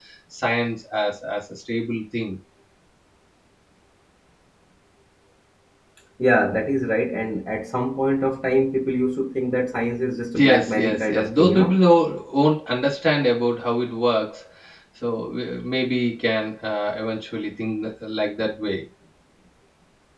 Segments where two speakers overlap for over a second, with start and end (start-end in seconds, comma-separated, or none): 10.3-11.8